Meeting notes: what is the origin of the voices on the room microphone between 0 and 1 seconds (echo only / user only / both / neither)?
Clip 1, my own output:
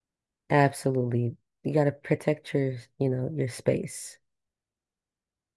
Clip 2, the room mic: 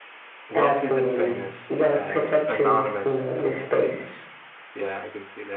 both